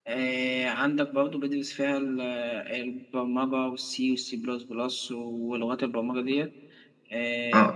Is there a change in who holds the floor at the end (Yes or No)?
Yes